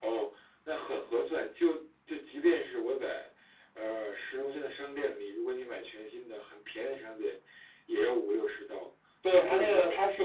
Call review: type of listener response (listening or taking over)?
taking over